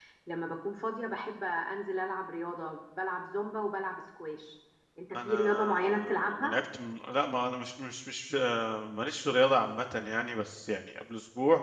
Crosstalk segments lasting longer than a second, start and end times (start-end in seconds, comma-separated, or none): 5.1-6.5